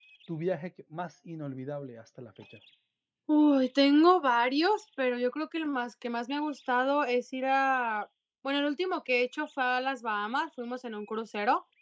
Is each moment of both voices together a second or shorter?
Yes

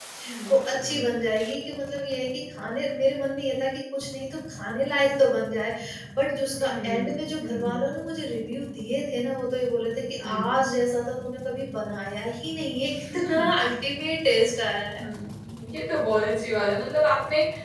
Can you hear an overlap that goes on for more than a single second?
Yes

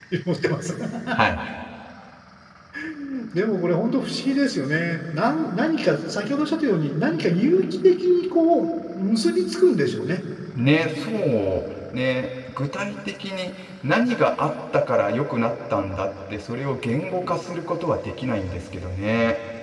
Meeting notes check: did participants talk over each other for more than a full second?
No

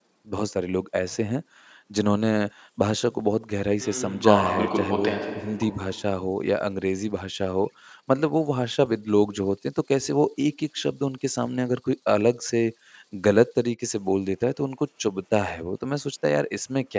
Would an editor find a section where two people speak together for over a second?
Yes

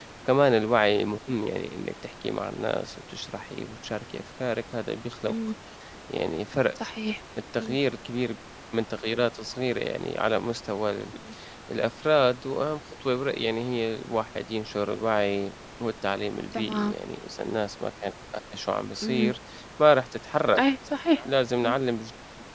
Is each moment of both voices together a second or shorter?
Yes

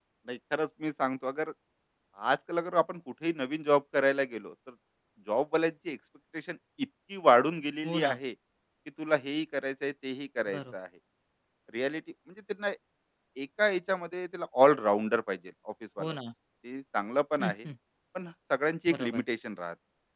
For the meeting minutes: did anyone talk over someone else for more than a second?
No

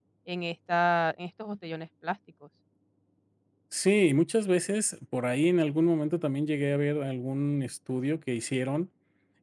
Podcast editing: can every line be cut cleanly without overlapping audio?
Yes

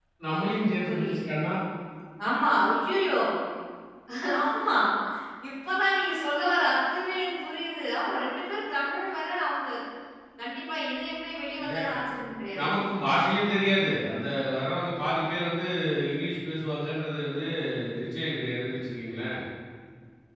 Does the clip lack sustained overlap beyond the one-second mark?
Yes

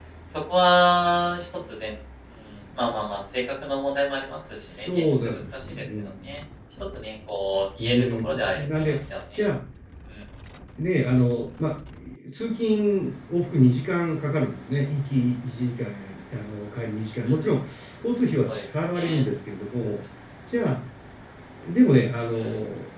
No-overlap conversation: No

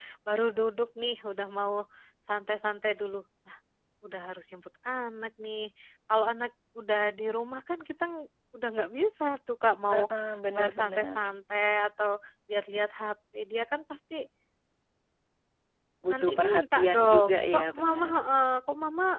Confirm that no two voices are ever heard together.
No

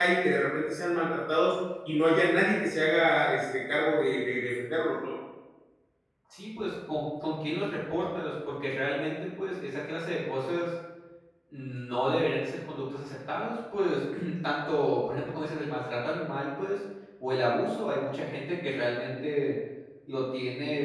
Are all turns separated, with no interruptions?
Yes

